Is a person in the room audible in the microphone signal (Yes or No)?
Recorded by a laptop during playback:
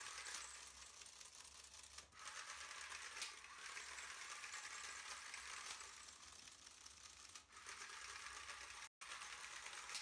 No